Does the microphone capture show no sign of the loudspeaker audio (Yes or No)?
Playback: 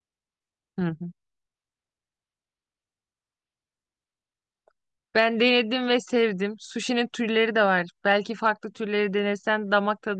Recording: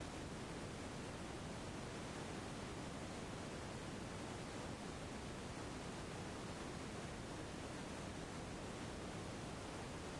Yes